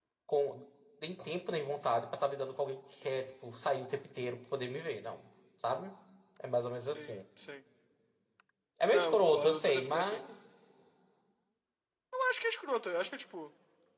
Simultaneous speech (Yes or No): Yes